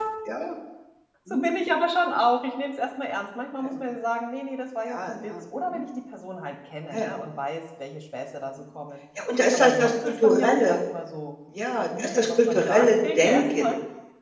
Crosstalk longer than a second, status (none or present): present